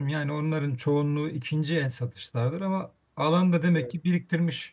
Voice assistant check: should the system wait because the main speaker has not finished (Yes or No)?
Yes